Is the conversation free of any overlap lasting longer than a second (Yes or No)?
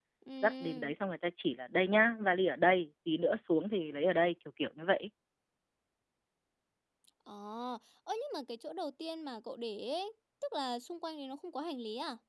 Yes